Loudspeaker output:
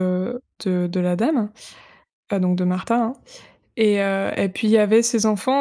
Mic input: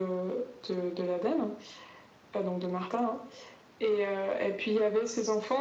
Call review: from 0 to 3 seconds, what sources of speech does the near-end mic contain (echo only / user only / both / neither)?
echo only